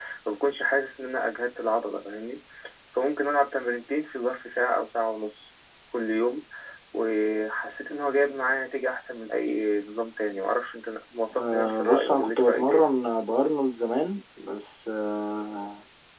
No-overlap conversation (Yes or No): No